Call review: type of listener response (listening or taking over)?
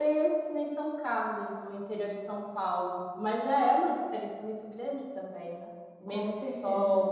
listening